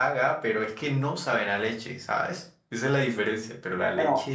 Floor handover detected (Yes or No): Yes